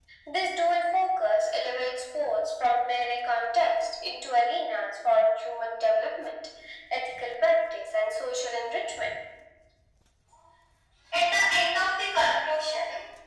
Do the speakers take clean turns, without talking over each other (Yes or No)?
Yes